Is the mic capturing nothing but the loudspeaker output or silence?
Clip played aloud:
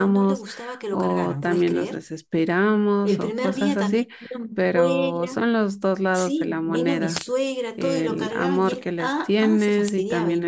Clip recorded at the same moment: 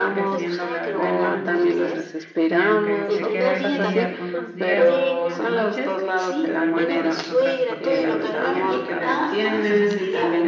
No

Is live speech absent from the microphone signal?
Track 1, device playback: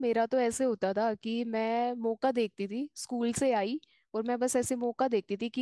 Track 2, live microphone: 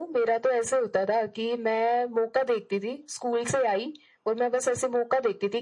Yes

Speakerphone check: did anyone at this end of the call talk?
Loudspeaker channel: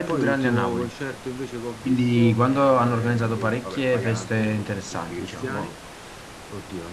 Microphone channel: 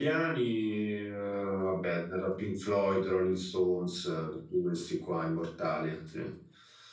Yes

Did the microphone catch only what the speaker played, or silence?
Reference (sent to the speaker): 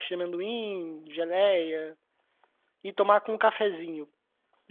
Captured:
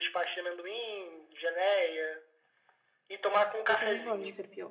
No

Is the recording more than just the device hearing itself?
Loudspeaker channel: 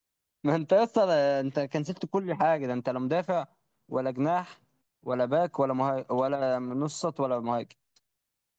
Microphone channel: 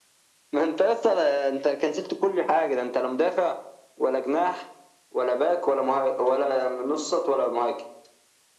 No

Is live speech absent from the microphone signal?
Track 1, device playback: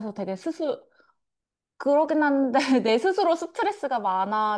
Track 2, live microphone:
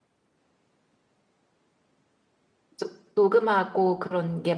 No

